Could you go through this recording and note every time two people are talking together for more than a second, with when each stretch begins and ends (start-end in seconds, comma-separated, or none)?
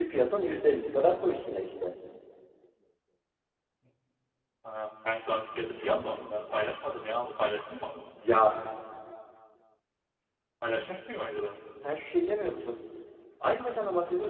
none